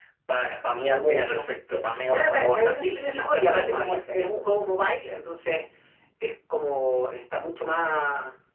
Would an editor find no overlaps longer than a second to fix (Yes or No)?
No